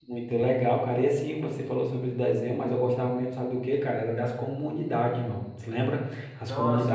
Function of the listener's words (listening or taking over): taking over